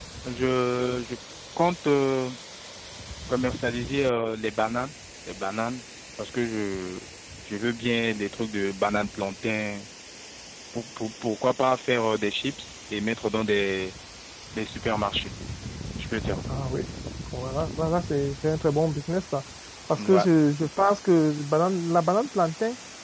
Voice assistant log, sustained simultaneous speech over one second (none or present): none